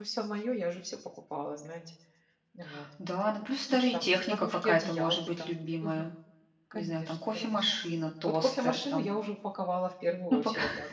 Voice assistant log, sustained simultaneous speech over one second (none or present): present